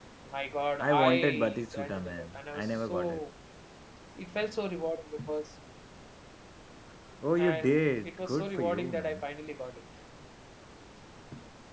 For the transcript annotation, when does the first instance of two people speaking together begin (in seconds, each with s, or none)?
0.8 s